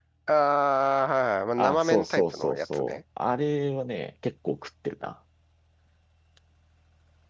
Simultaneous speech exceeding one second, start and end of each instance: 1.6-3.0

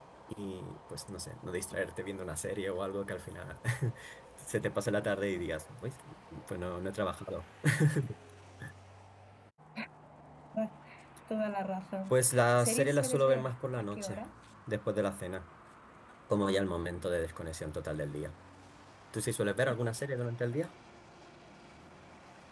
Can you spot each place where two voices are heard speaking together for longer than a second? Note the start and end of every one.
12.1-14.2

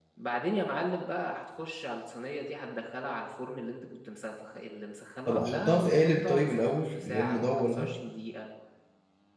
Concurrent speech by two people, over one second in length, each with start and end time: 5.3-7.9

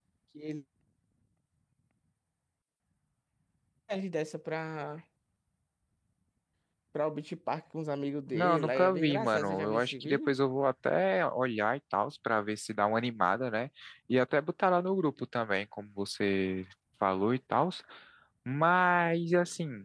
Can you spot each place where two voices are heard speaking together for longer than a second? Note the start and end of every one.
8.3-10.3

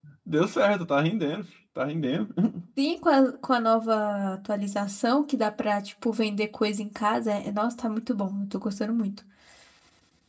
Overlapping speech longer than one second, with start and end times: none

